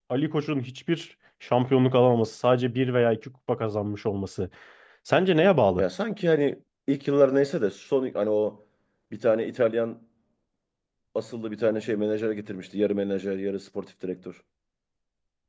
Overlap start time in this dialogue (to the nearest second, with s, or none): none